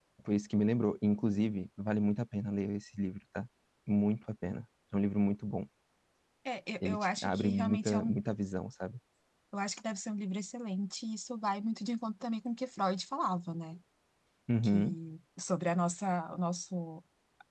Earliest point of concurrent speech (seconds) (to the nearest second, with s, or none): 7 s